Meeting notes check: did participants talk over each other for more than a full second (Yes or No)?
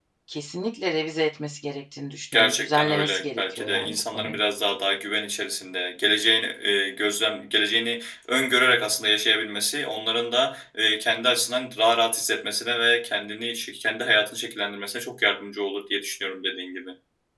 Yes